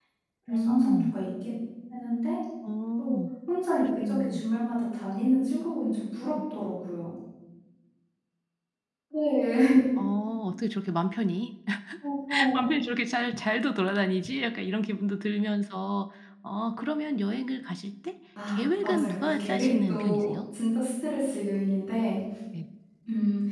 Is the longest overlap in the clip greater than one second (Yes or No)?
Yes